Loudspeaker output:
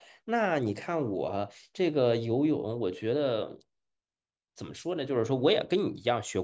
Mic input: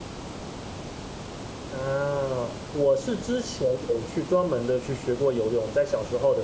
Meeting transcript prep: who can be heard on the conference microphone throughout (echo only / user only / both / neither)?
user only